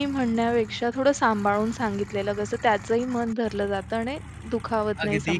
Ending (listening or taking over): taking over